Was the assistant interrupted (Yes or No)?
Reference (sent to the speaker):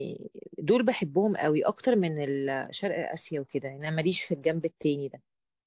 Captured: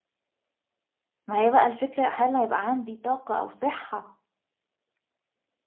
Yes